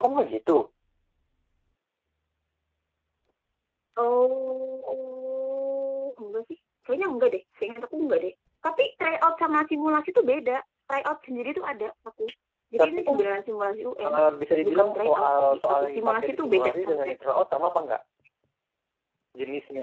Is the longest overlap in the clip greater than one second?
Yes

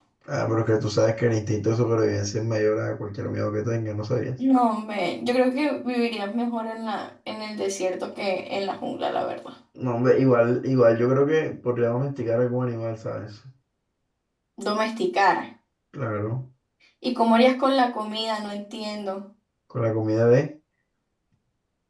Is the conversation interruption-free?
Yes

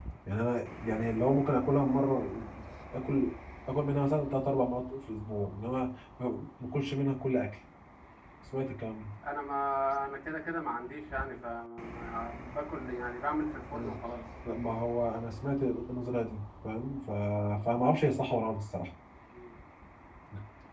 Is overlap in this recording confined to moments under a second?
Yes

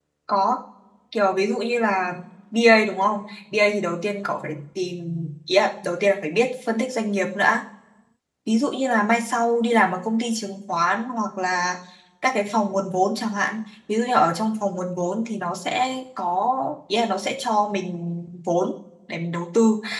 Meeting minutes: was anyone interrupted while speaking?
No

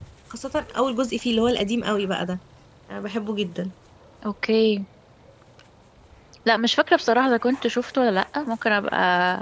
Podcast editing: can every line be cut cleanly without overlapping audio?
Yes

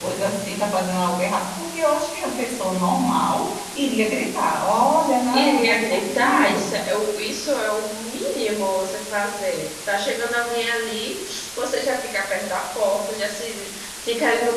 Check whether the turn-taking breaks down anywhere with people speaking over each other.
Yes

